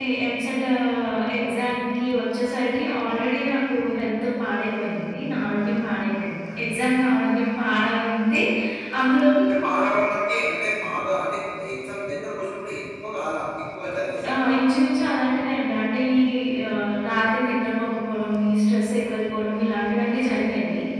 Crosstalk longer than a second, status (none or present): none